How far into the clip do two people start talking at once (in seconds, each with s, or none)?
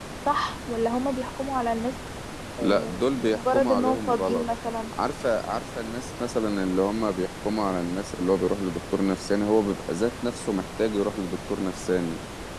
2.6 s